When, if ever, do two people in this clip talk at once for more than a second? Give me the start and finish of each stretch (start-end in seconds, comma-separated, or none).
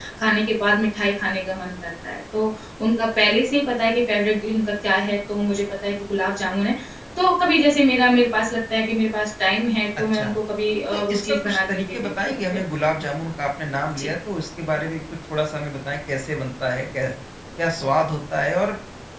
10.9-12.4